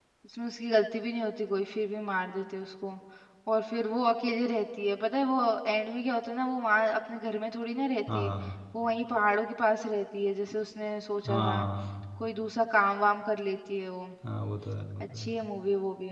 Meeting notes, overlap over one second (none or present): none